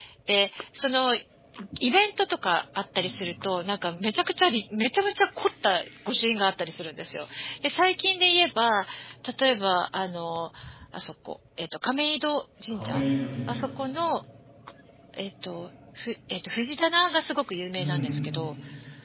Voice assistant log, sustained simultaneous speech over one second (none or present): none